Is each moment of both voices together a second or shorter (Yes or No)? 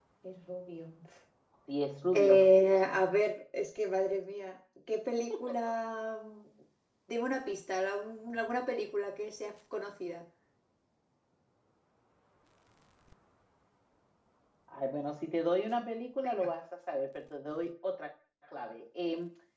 Yes